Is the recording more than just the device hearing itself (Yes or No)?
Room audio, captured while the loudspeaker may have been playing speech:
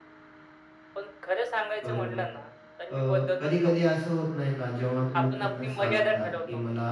Yes